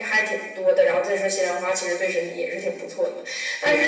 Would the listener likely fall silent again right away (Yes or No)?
Yes